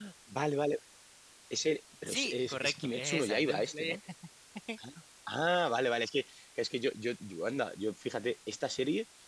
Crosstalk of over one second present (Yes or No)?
Yes